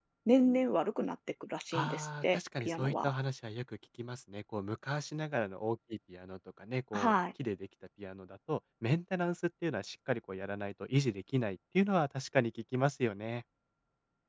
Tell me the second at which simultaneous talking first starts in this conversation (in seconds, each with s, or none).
1.7 s